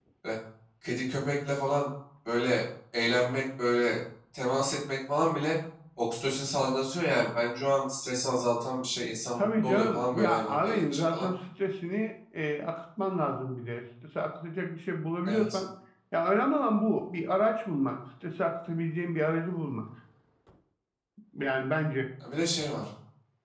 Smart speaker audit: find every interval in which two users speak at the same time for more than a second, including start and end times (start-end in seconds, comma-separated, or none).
9.4-11.3